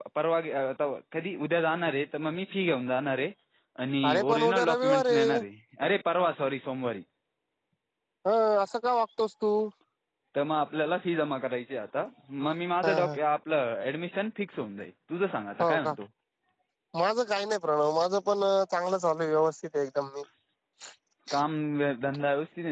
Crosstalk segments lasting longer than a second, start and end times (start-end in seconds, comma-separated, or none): 4.1-5.4